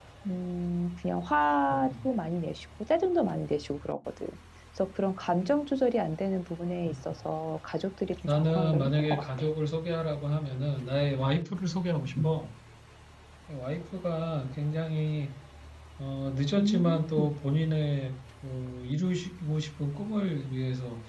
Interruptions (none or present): present